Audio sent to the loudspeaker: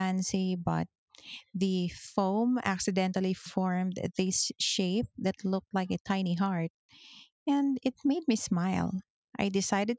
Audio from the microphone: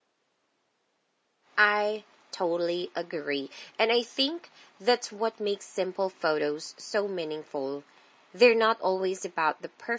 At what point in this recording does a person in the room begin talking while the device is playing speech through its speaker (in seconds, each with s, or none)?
1.6 s